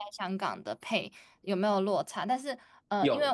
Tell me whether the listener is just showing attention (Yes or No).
Yes